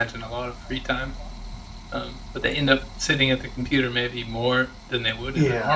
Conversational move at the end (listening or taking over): taking over